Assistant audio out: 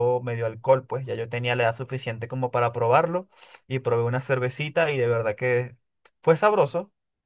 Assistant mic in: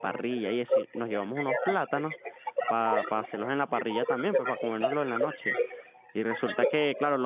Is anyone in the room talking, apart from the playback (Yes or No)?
Yes